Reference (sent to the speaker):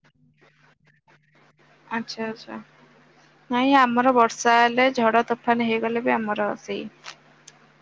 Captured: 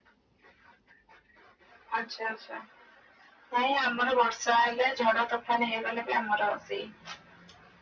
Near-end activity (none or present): none